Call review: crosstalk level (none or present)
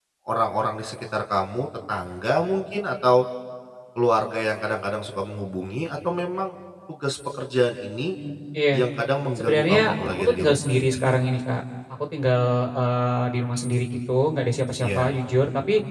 present